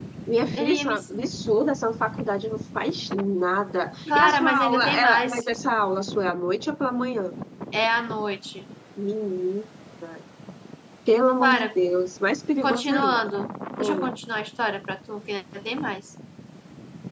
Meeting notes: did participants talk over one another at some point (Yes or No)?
Yes